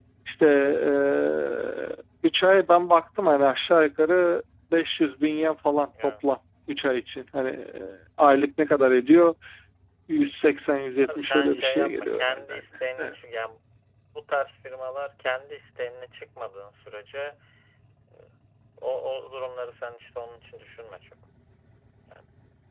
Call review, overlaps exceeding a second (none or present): present